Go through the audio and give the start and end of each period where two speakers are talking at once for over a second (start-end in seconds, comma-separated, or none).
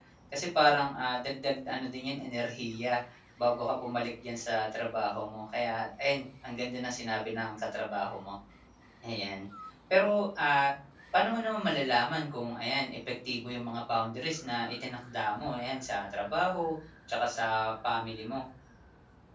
none